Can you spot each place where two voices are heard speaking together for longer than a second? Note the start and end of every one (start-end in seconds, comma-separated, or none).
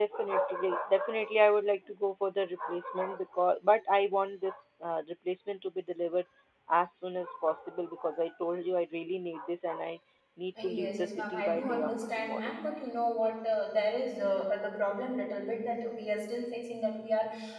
10.6-12.5